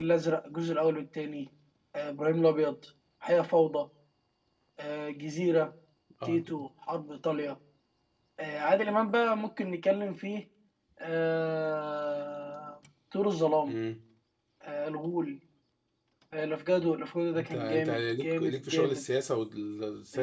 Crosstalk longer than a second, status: present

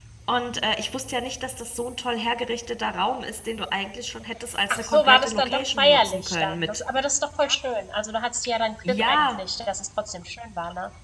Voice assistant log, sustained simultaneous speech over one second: present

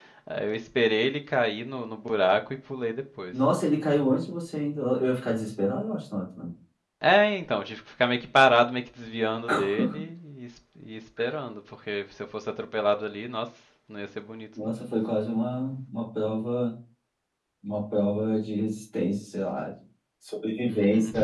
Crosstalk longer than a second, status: none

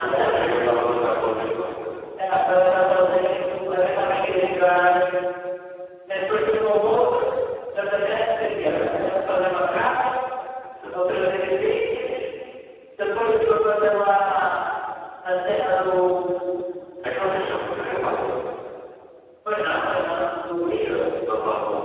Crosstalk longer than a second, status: present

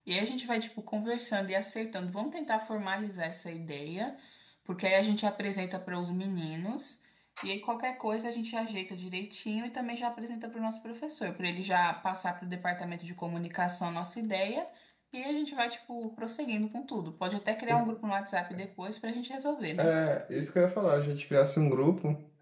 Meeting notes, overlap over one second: none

